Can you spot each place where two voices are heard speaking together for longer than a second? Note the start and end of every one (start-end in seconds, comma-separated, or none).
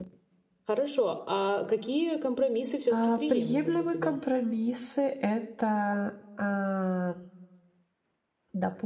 2.9-4.2